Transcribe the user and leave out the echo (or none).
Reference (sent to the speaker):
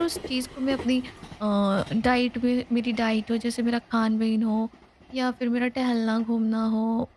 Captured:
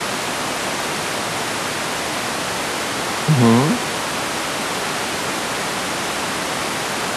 हुँ, हुँ।